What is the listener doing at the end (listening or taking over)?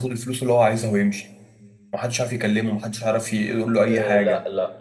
taking over